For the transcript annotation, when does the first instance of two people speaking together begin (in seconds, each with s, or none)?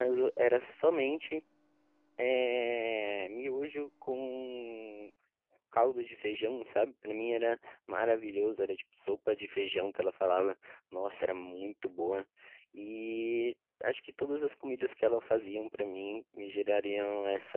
none